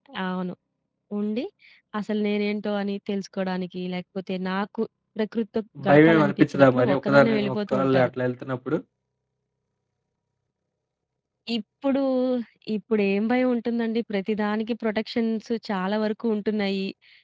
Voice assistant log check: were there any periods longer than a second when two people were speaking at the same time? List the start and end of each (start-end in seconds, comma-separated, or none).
5.9-8.1